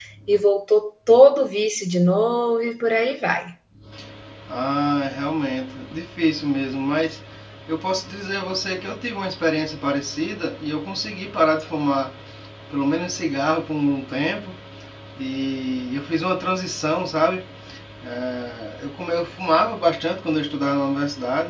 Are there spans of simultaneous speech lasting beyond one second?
No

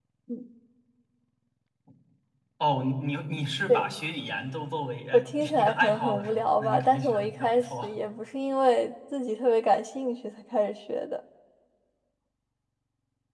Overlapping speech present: Yes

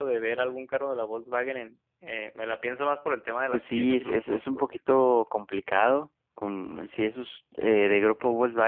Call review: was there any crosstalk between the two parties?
Yes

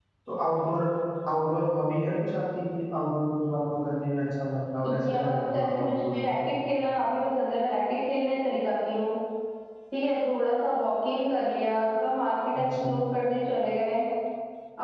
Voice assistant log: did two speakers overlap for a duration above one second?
Yes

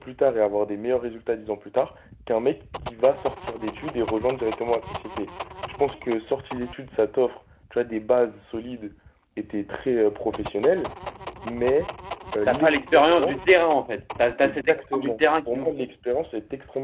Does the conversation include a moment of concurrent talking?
Yes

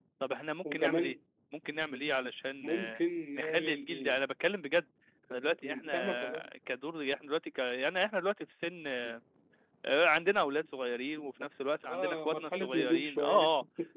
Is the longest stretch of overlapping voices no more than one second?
No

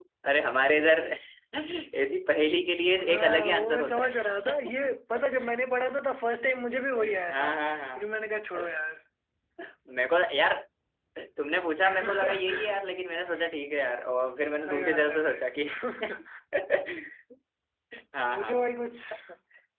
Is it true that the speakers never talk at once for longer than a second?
No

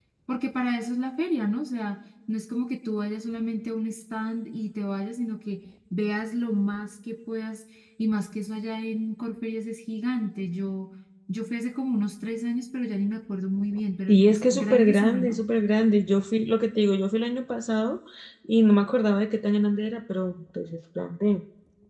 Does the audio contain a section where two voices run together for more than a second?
Yes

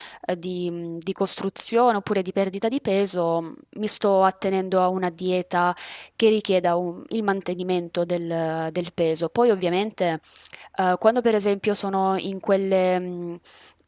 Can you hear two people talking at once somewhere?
No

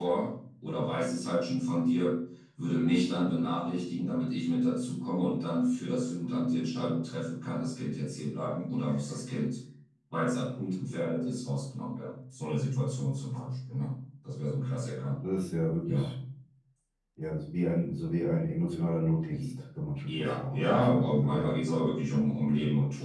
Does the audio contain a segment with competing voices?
Yes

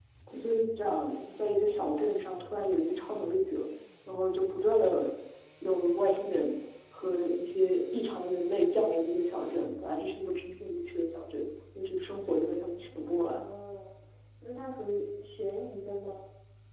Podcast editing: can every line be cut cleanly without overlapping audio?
Yes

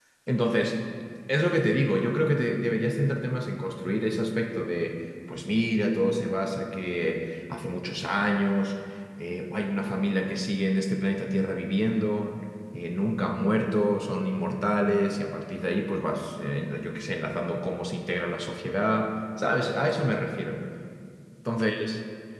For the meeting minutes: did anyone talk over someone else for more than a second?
No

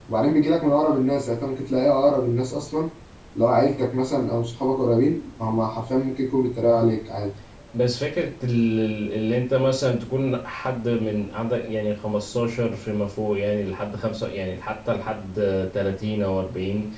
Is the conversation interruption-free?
Yes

